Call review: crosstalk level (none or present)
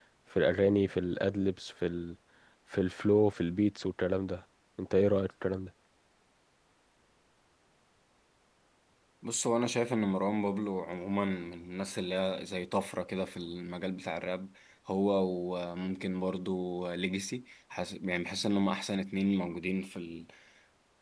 none